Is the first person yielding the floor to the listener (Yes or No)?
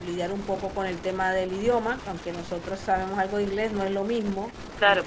Yes